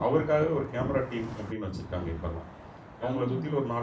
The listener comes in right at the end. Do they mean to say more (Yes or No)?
No